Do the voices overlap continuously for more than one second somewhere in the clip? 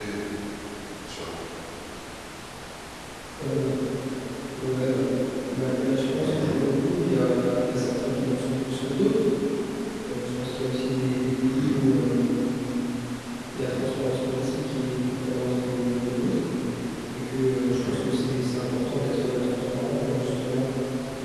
No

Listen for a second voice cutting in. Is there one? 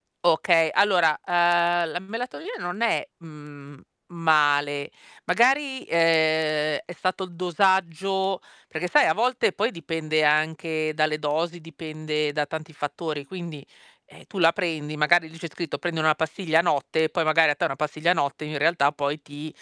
No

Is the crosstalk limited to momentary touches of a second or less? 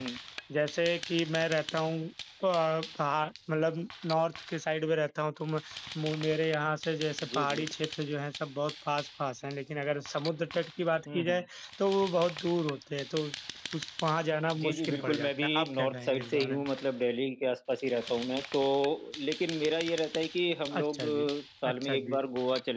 No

